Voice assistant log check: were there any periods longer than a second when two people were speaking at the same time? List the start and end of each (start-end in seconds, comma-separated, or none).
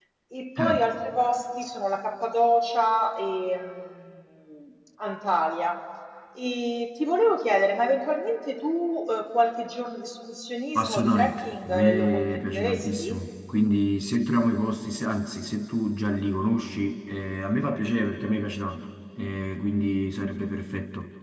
10.8-13.2